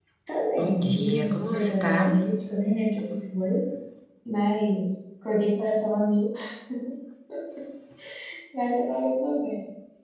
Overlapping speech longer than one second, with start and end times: 0.6-2.1

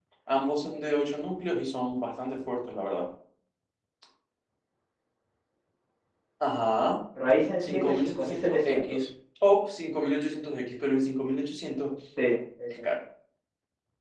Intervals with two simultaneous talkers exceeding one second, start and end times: 7.6-9.1

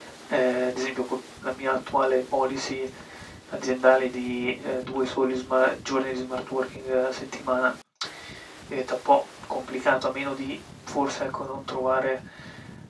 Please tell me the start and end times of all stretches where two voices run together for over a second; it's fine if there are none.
none

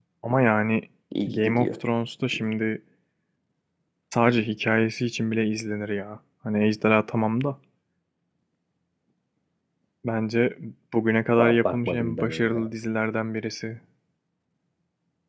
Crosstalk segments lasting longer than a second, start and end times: 11.4-12.7

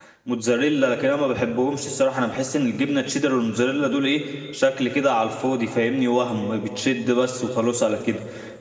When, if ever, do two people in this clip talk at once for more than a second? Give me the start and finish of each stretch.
none

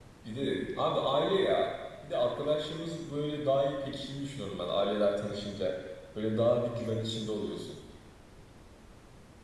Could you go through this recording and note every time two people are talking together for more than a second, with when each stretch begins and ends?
none

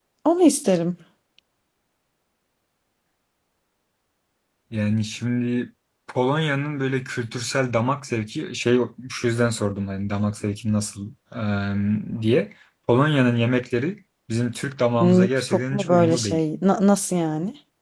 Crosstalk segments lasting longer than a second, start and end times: 15.0-16.4

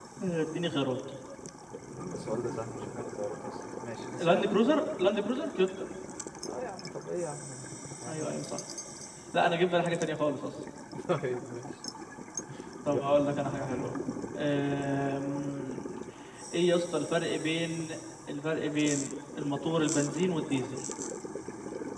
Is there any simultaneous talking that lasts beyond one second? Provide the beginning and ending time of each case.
none

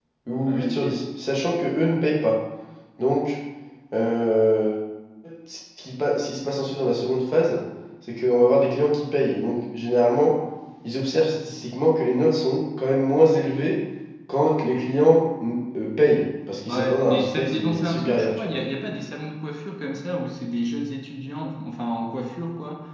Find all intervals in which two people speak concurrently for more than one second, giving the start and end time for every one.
16.7-18.5

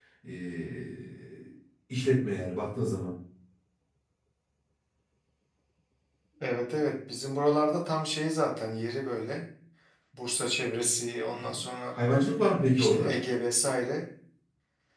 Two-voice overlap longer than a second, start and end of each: none

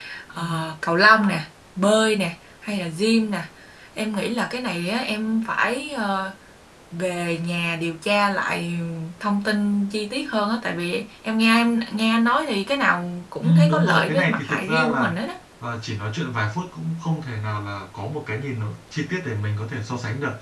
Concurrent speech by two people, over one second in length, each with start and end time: 13.4-15.1

